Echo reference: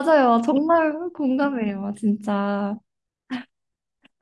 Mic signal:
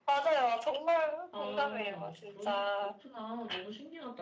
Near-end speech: present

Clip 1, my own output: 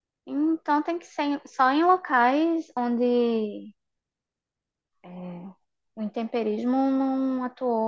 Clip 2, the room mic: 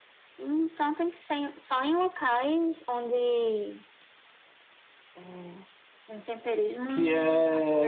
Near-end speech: present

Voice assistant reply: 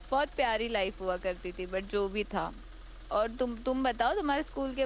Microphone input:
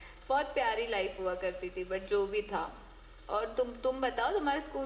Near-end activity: none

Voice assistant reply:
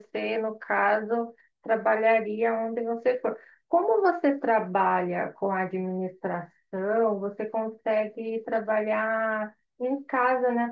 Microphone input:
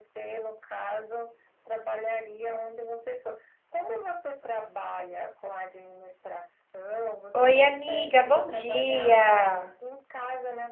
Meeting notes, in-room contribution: present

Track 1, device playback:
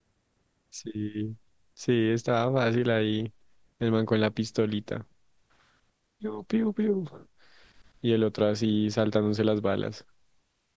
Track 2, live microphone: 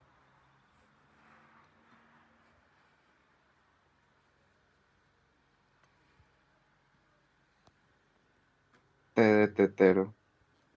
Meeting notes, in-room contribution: present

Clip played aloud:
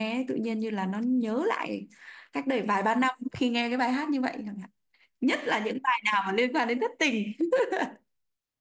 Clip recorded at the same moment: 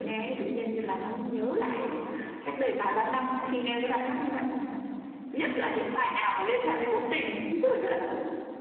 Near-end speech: none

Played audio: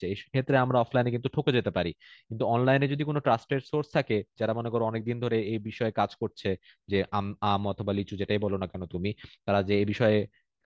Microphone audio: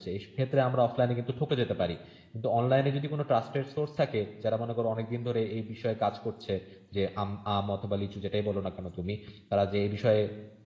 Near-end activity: none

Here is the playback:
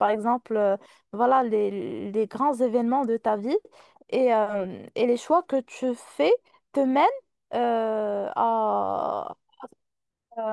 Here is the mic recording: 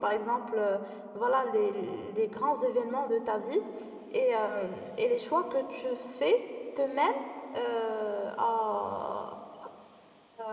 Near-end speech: none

